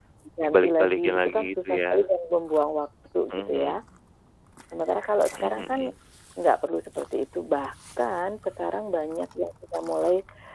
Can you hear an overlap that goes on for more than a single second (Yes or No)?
Yes